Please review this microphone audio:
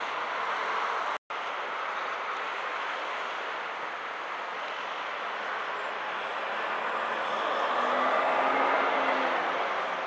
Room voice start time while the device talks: none

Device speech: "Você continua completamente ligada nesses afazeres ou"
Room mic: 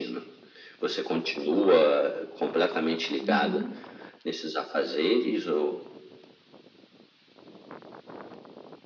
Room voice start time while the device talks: 3.1 s

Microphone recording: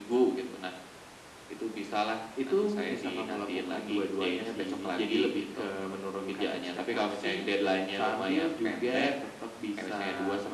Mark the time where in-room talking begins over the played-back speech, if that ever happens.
none

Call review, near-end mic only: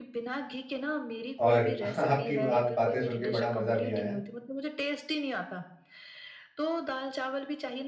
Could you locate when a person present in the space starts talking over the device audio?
1.5 s

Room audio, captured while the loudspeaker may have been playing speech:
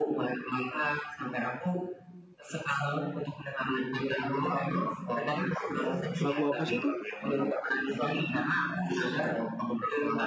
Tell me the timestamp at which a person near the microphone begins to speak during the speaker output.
6.2 s

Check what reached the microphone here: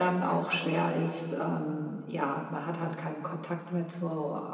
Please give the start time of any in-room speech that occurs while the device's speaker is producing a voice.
none

